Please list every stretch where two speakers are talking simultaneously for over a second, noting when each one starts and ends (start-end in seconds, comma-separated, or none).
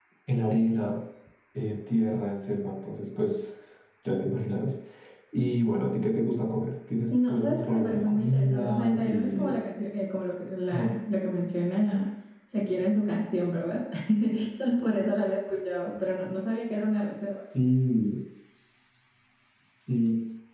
7.1-9.6